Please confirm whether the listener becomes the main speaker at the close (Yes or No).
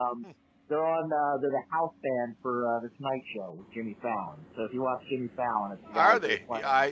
Yes